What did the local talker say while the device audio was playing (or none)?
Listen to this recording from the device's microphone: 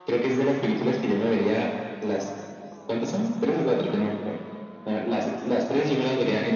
none